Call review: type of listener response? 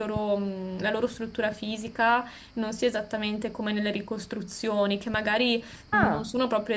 listening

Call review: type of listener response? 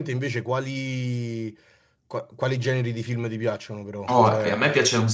taking over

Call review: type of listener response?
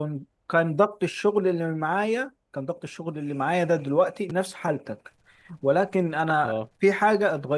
listening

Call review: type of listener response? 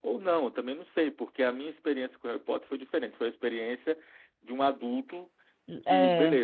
listening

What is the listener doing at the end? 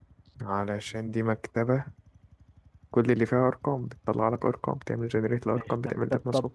taking over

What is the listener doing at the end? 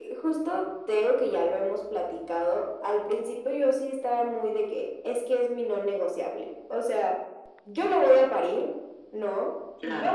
listening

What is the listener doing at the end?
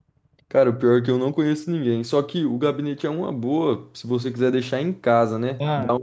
listening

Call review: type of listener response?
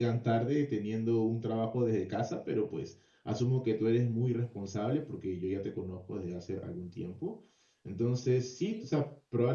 listening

